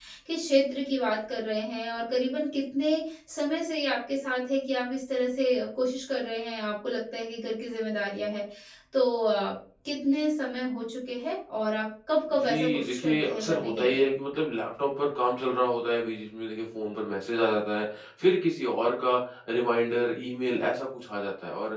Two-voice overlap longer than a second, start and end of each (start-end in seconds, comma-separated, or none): 12.4-14.0